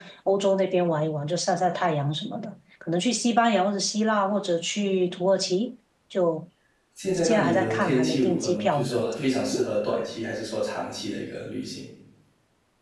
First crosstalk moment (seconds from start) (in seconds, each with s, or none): 7.2 s